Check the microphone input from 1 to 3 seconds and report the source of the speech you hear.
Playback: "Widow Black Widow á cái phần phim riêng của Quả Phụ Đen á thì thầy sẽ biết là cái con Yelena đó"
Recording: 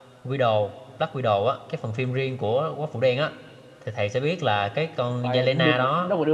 echo only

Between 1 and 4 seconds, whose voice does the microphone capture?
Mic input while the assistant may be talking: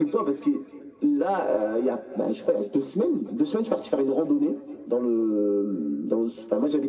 echo only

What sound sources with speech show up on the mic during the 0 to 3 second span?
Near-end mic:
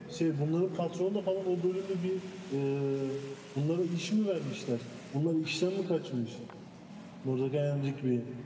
echo only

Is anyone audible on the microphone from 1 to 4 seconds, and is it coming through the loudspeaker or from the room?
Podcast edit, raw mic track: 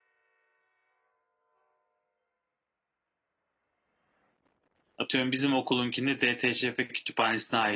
neither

